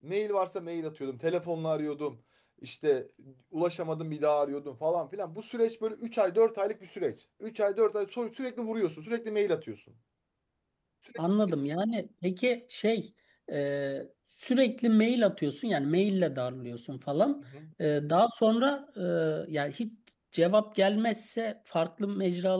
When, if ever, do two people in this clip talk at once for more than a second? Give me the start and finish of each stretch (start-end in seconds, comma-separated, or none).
none